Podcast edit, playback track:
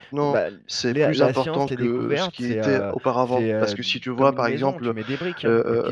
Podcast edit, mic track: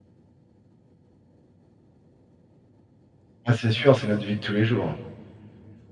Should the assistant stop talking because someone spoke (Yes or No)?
Yes